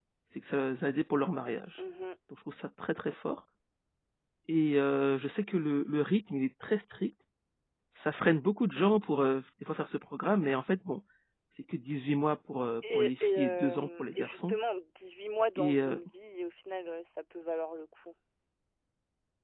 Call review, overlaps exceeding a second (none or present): present